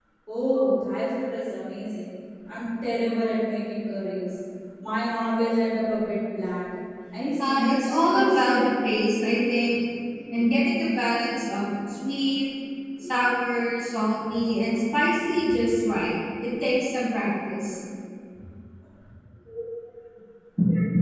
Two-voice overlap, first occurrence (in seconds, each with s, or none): 7.4 s